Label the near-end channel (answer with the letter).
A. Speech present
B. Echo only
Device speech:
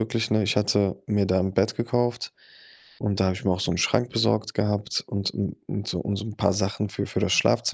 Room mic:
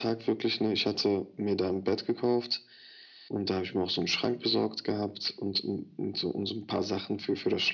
B